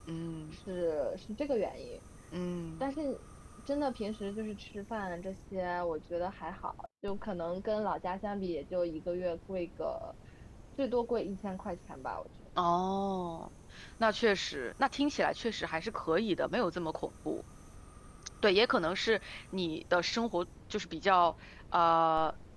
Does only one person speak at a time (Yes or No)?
Yes